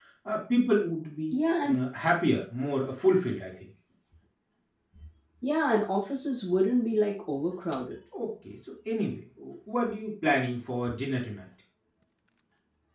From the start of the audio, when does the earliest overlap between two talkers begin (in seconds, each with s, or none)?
none